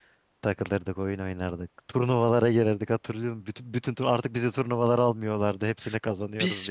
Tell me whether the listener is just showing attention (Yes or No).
No